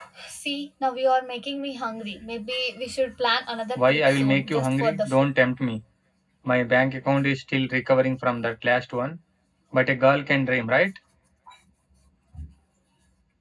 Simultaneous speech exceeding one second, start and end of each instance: 3.8-5.2

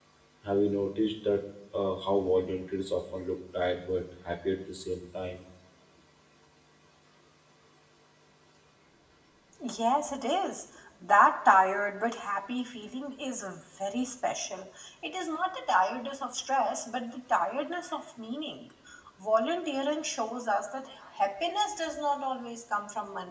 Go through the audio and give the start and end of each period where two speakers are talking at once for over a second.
none

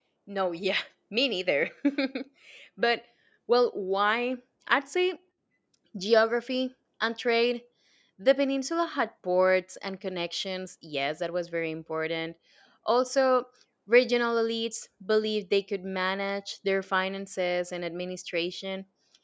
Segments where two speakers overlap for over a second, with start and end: none

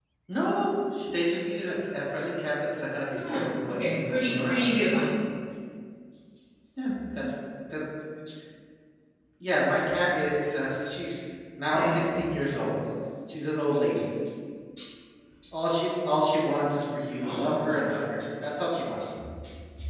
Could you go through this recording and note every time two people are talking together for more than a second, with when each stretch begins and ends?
3.2-4.6

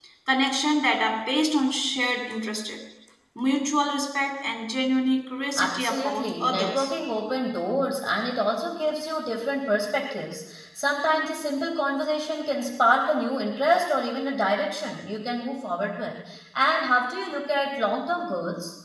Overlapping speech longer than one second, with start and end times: 5.6-6.9

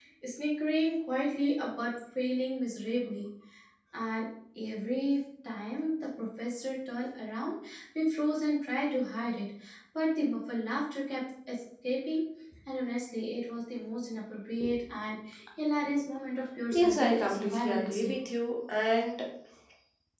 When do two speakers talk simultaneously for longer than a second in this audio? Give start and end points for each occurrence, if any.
16.7-18.1

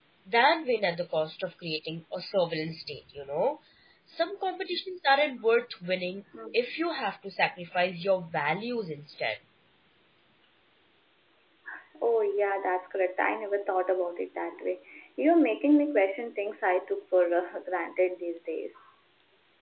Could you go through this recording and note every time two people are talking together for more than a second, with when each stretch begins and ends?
none

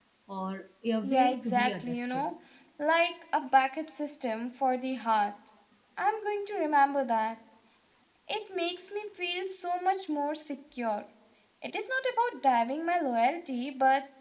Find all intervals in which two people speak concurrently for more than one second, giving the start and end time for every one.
1.0-2.3

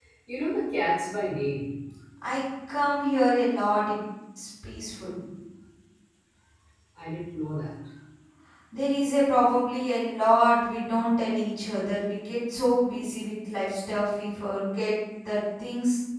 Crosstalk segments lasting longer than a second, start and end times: none

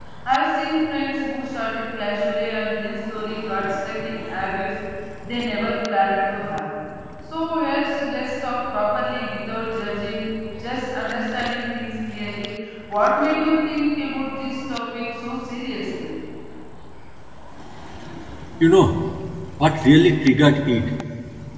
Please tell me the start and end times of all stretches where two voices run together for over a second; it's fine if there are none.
none

